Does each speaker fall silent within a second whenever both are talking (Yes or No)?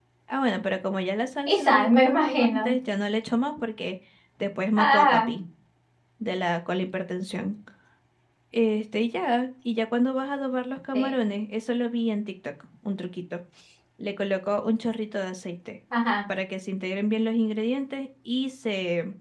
No